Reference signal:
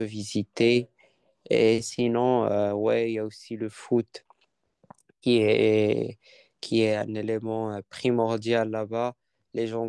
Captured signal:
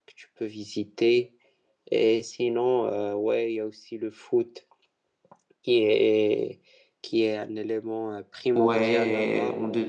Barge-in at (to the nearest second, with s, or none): 9 s